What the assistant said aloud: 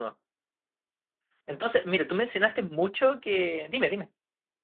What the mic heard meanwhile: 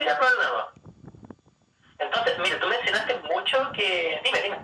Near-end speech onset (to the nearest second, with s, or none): none